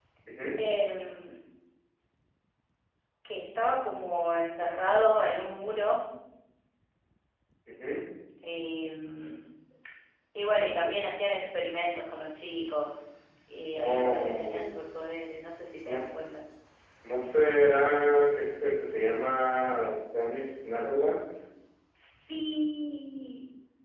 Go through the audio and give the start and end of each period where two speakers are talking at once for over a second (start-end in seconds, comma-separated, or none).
13.8-15.1